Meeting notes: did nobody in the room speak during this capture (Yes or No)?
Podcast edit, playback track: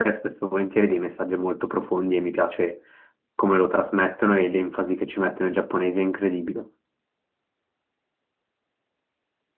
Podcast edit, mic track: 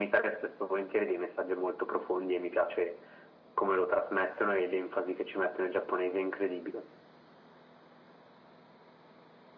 Yes